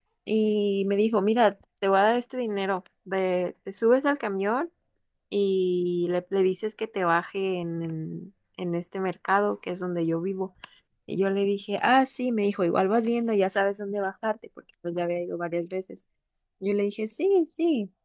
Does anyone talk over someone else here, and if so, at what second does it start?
none

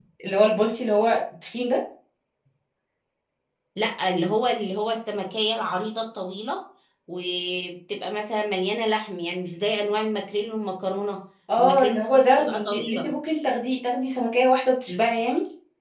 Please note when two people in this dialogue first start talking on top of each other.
11.6 s

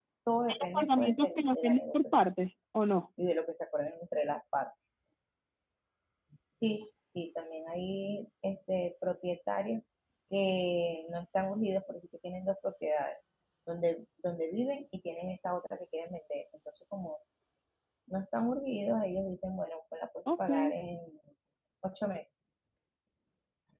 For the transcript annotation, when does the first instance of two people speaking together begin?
0.6 s

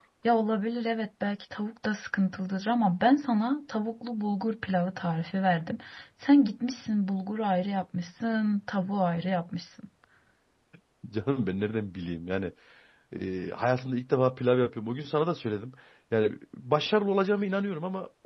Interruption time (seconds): none

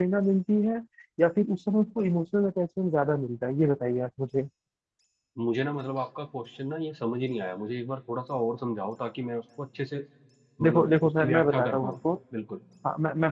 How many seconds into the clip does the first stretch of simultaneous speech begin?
10.6 s

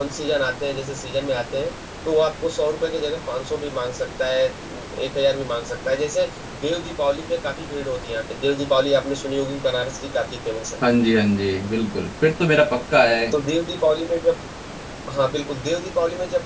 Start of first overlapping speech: none

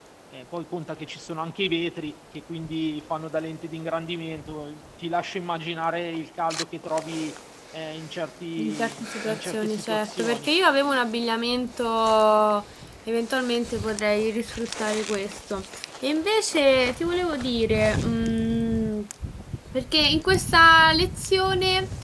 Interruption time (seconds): 8.6 s

